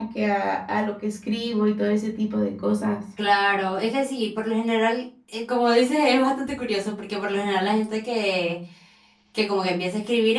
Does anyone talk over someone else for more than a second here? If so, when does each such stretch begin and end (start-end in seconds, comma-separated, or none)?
none